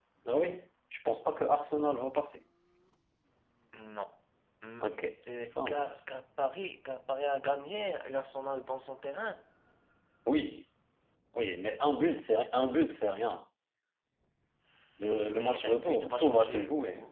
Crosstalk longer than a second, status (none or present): present